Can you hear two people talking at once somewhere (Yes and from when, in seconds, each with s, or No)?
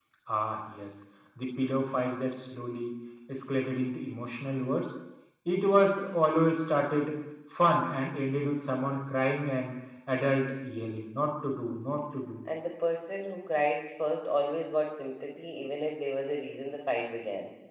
No